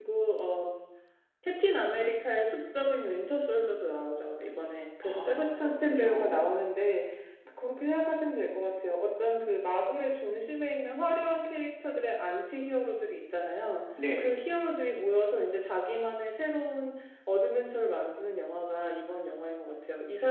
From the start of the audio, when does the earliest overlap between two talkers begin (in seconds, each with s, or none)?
5.0 s